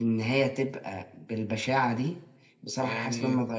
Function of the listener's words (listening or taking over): listening